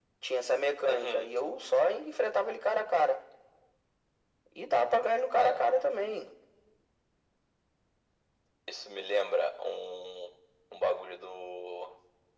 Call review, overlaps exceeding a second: none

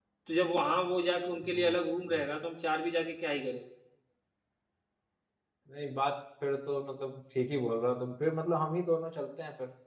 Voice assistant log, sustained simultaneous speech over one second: none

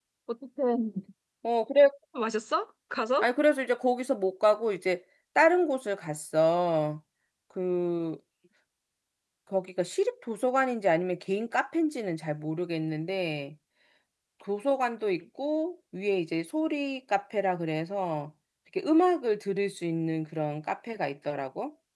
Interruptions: none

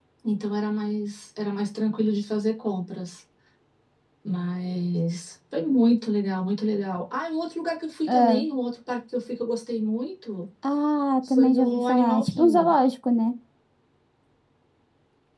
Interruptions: present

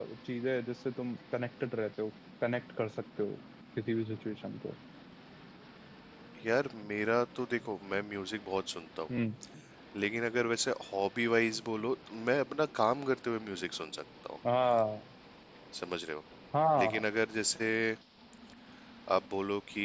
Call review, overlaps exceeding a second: none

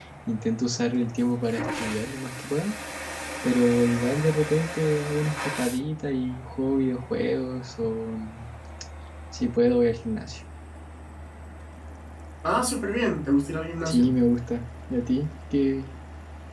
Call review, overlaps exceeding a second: none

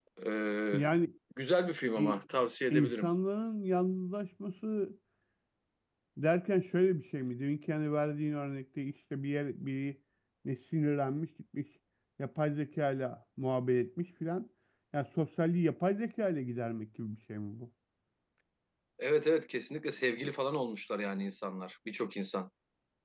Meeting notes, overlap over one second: none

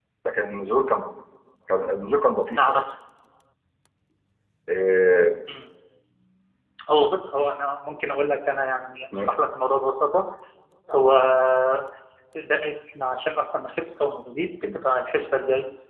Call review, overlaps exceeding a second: none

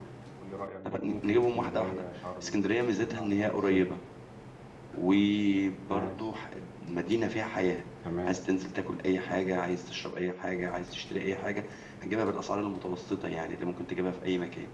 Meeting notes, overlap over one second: present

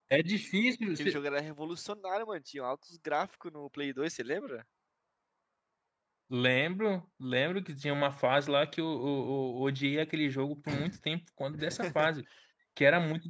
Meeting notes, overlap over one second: none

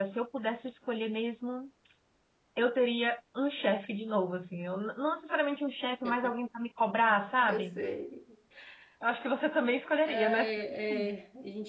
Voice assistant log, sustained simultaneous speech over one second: none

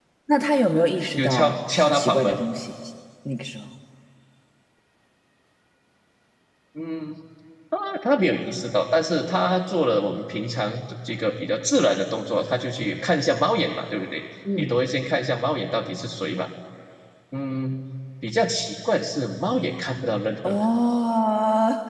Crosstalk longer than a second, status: present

